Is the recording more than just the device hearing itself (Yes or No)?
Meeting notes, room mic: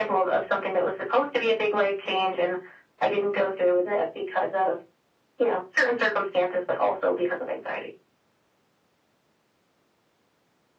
No